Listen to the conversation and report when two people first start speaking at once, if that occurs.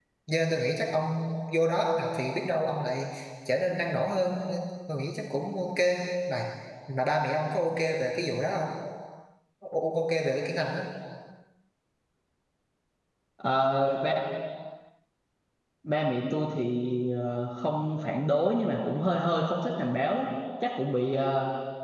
none

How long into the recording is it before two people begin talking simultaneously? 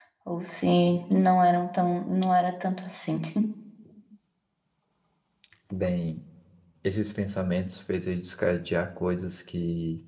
none

